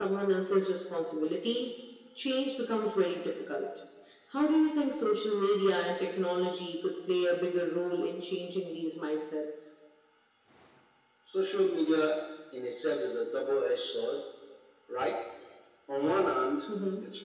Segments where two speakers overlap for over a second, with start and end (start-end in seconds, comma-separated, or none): none